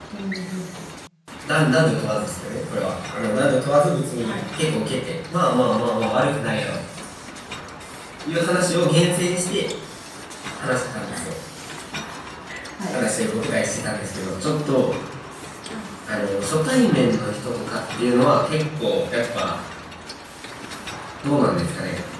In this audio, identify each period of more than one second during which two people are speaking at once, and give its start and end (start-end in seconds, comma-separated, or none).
none